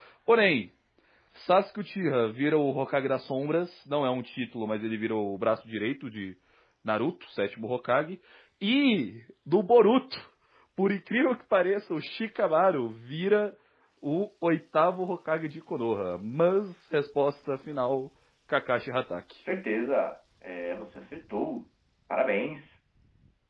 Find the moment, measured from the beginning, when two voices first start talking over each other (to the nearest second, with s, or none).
none